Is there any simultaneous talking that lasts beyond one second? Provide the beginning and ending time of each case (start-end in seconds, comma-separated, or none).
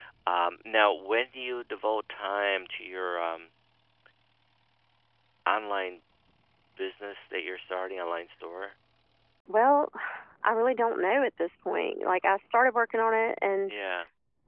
none